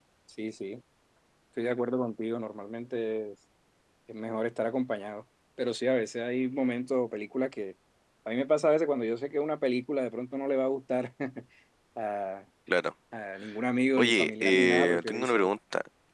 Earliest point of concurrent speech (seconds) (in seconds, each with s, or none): 14.0 s